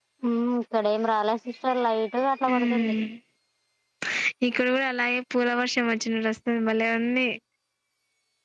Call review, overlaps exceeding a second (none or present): none